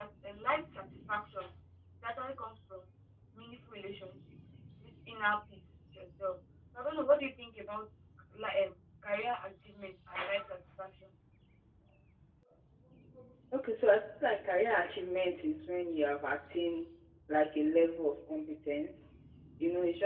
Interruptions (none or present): none